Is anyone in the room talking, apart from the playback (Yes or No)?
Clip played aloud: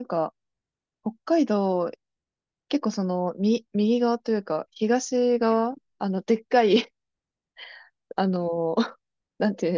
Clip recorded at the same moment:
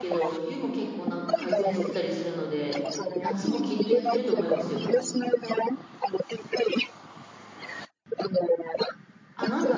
Yes